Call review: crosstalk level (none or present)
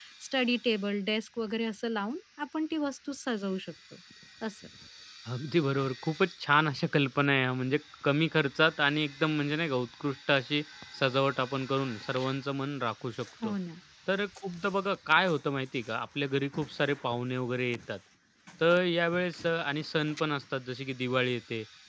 none